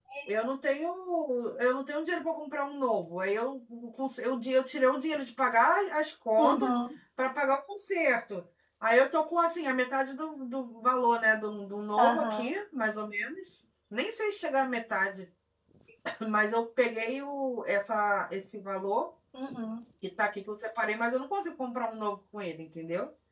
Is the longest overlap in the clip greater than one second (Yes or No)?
No